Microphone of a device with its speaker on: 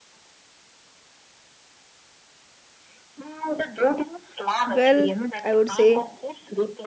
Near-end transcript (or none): Well, I would say